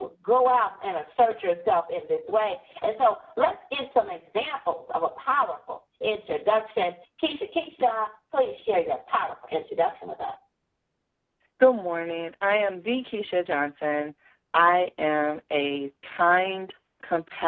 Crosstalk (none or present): none